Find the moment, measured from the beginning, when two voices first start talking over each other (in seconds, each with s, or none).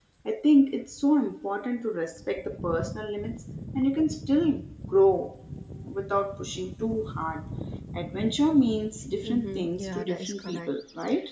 9.2 s